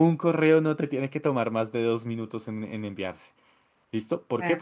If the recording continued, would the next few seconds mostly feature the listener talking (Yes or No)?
No